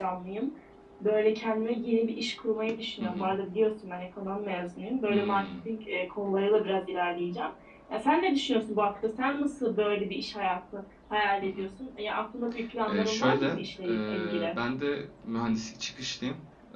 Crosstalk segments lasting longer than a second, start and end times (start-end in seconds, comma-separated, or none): 12.9-14.6